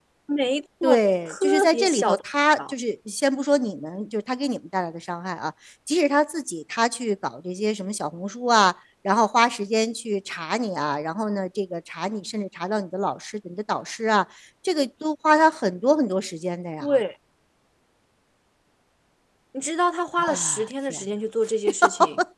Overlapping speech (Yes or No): Yes